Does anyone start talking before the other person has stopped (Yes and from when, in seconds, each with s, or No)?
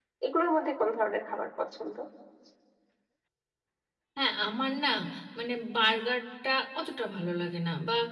No